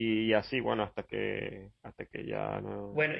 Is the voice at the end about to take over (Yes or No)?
Yes